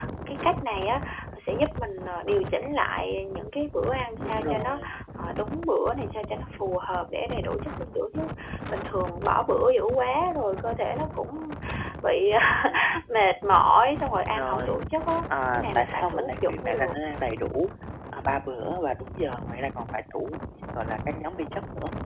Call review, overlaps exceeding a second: present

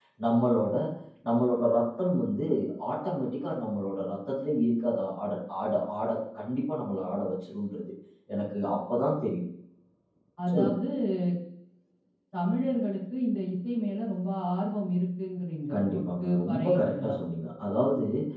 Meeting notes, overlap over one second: present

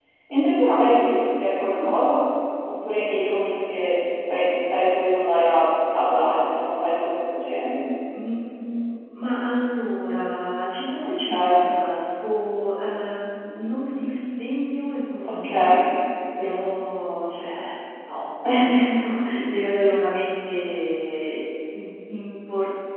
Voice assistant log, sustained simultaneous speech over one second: none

